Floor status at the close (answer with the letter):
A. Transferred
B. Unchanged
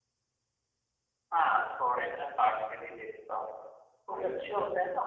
B